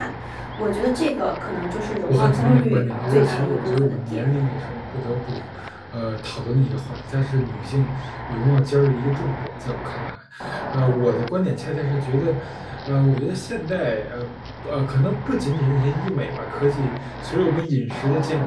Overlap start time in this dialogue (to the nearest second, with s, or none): 2 s